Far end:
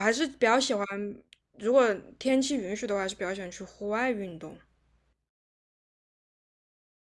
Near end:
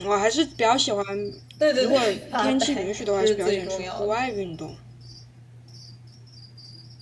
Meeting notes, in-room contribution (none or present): present